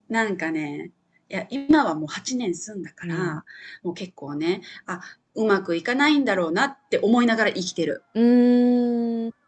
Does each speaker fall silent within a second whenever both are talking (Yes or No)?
Yes